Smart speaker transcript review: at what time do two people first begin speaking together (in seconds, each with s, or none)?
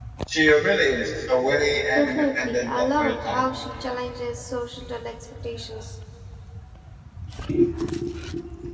2.0 s